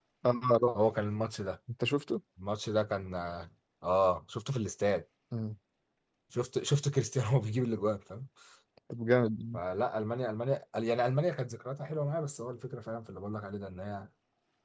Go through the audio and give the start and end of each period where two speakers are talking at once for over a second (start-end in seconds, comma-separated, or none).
none